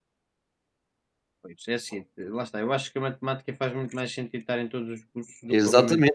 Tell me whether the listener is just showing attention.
No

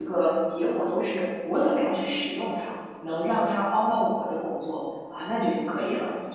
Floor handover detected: Yes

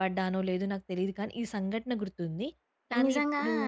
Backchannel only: No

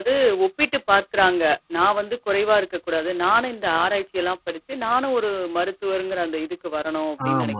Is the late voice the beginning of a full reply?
Yes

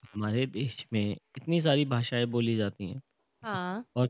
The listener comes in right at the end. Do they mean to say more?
No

